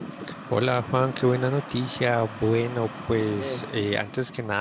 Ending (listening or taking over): listening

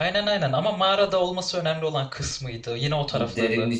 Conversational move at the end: taking over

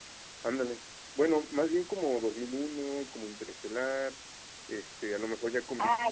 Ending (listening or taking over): taking over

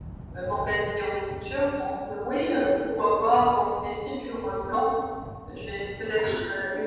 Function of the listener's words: listening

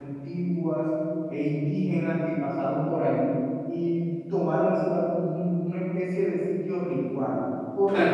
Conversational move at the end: listening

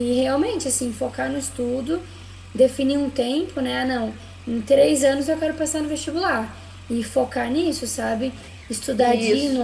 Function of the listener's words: listening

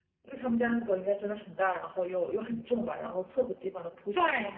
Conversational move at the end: taking over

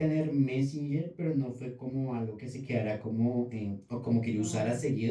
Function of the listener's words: listening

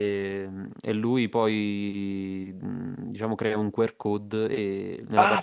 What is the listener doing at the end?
taking over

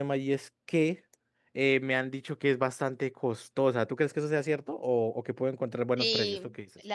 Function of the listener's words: taking over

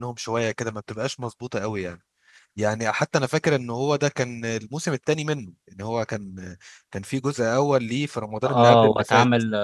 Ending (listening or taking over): taking over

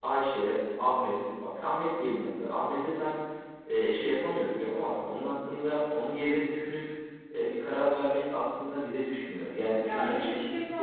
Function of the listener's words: taking over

